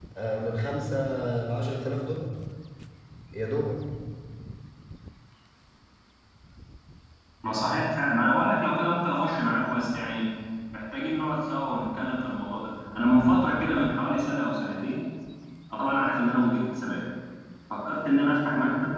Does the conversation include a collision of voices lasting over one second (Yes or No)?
No